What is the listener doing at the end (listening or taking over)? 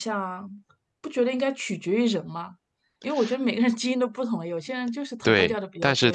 taking over